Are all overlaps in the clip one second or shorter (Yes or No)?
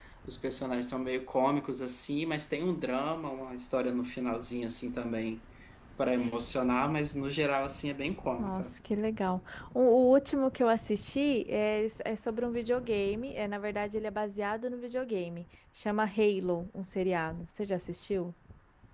Yes